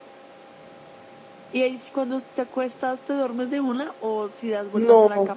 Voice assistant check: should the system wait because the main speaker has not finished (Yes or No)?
No